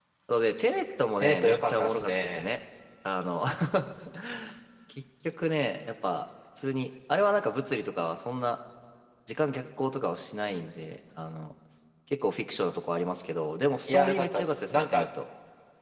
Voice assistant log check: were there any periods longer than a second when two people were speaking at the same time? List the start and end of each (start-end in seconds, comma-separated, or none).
1.2-2.5, 13.9-15.1